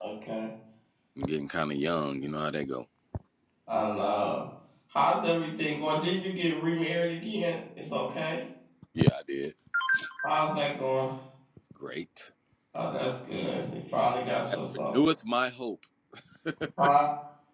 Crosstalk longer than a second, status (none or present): none